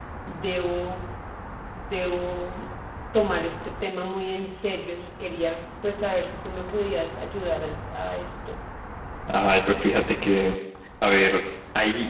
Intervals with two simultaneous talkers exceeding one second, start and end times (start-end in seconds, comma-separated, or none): none